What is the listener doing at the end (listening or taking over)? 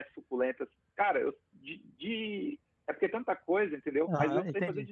taking over